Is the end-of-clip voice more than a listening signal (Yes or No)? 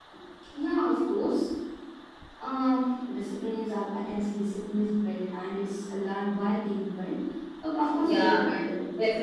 Yes